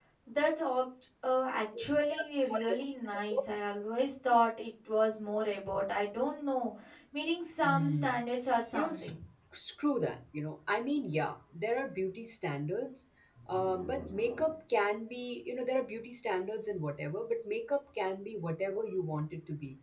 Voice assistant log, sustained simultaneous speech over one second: none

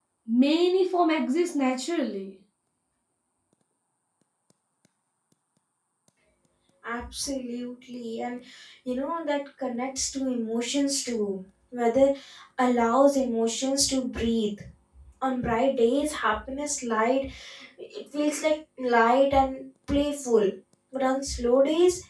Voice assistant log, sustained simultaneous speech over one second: none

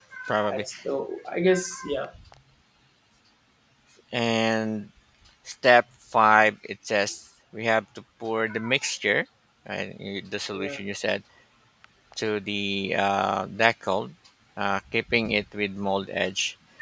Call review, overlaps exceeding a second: none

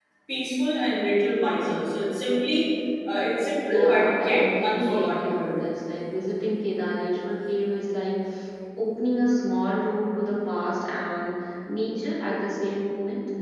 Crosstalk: present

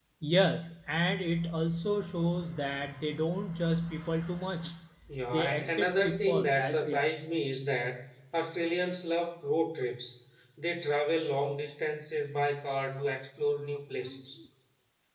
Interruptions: present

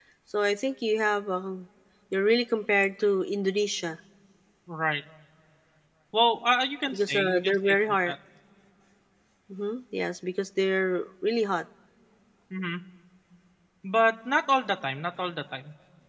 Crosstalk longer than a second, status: present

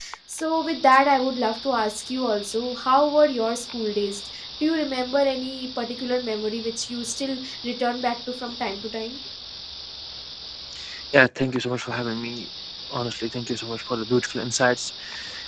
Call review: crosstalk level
none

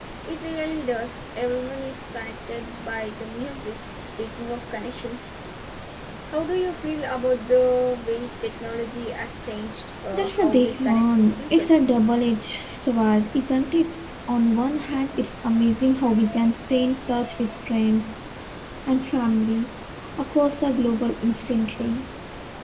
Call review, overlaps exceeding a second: present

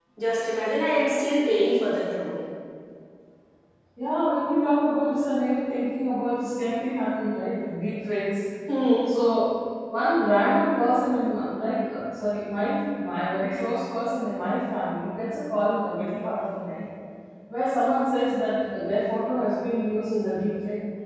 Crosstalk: none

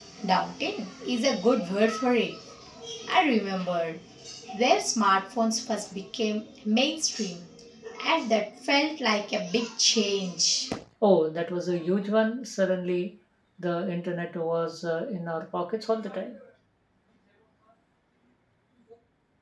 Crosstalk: none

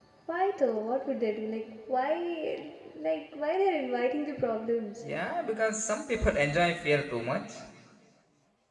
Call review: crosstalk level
none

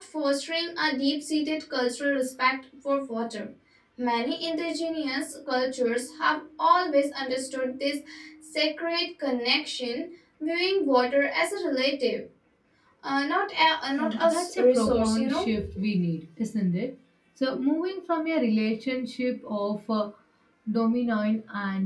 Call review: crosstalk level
present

